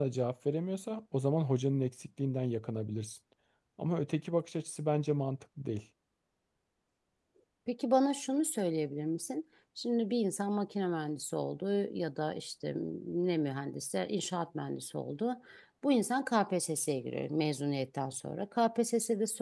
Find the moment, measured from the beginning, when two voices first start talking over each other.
none

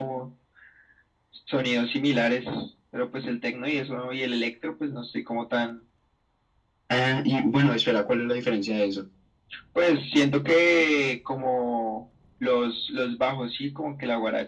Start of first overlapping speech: none

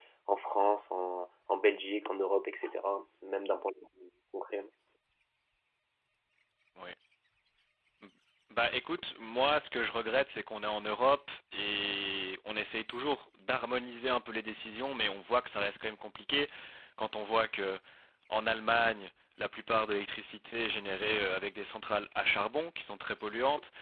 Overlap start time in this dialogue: none

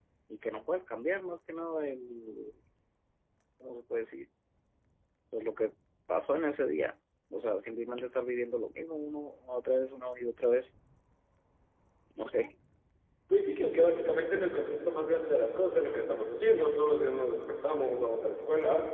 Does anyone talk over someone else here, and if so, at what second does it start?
none

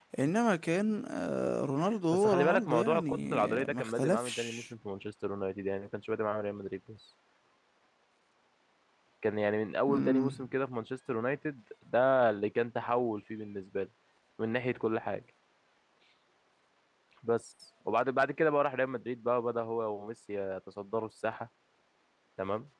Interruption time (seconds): 2.1 s

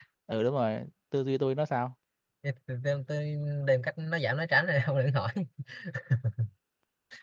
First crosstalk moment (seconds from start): none

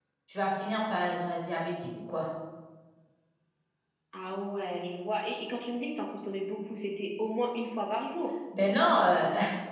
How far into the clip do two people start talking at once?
none

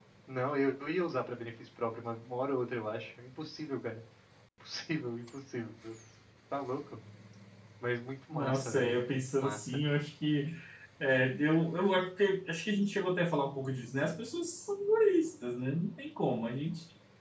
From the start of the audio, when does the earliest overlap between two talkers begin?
8.3 s

